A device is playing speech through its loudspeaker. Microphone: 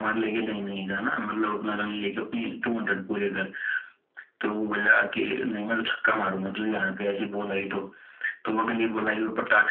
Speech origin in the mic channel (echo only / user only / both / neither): echo only